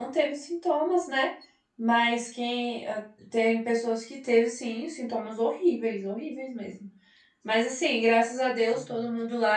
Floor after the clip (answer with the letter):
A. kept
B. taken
A